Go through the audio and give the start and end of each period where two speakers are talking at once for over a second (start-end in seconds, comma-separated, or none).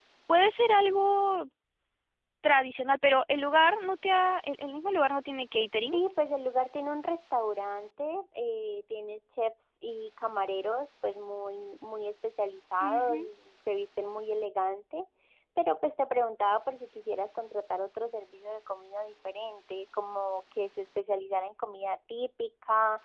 none